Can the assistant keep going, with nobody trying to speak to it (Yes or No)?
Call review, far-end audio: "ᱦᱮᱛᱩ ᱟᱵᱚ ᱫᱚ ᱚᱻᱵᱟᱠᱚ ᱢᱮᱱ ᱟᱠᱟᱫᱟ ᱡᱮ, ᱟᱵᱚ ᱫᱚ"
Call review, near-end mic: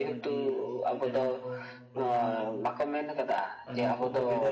No